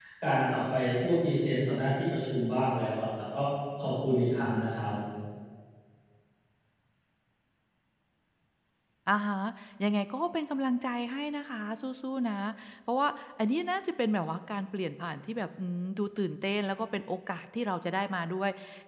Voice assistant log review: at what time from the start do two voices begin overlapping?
none

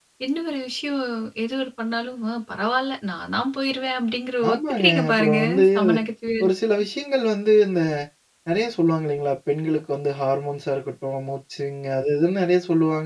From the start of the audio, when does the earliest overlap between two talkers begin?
4.5 s

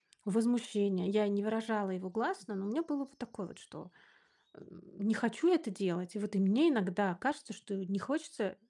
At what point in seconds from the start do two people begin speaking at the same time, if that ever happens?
none

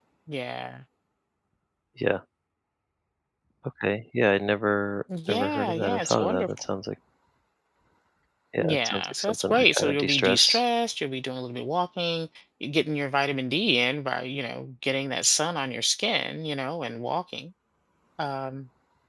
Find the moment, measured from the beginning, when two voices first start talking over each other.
5.3 s

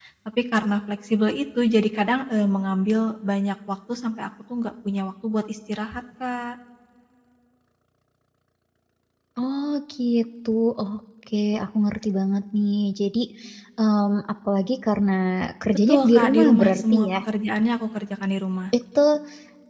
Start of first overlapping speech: 15.9 s

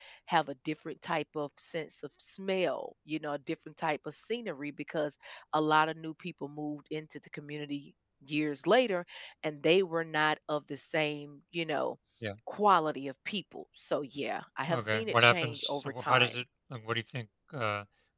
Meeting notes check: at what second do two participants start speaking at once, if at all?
14.7 s

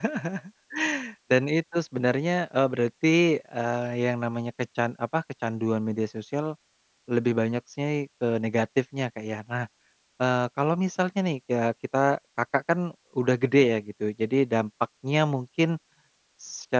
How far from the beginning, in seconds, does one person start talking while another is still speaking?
none

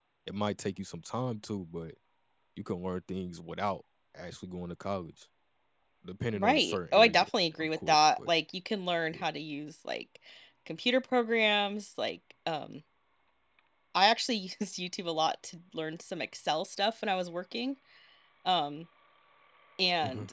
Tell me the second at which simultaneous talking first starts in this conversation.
6.3 s

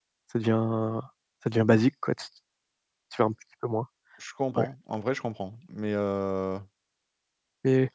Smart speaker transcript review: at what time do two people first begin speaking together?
none

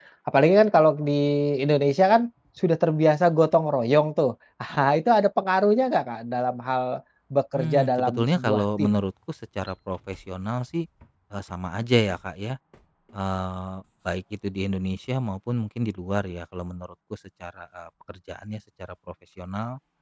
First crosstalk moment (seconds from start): 7.5 s

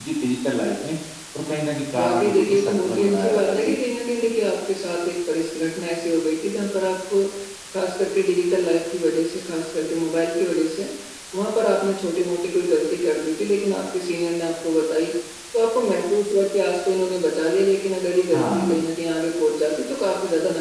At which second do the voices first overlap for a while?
2.0 s

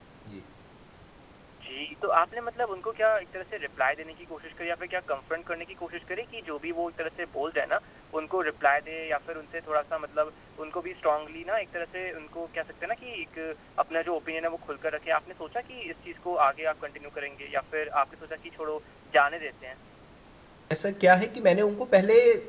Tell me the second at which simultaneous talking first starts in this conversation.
none

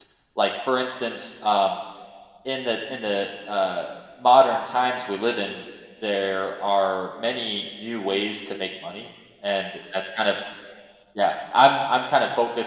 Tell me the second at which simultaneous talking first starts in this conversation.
none

